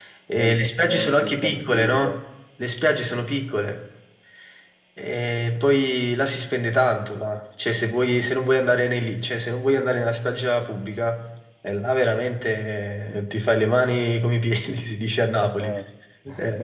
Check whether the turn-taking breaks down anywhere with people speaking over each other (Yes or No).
Yes